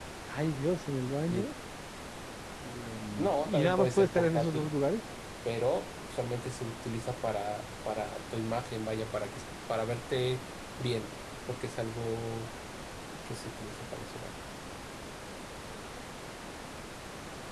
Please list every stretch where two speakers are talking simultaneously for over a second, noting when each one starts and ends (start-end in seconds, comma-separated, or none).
3.2-4.7